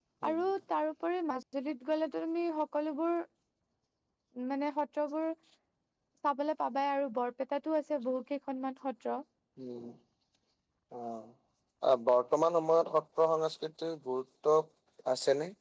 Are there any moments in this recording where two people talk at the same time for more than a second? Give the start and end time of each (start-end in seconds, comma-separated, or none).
none